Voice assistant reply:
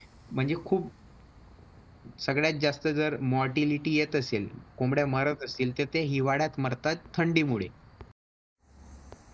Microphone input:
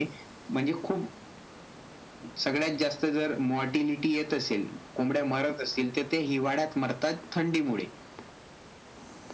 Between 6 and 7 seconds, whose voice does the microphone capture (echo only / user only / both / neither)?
echo only